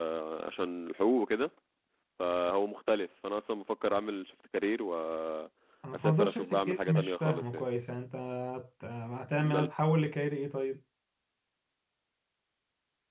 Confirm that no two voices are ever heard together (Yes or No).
No